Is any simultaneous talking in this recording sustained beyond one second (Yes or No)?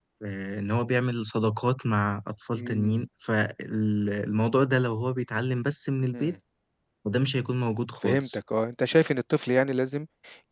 No